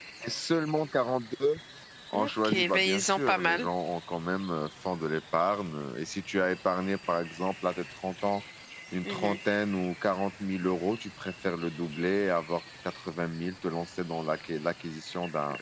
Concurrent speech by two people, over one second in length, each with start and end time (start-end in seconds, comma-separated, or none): 2.1-3.7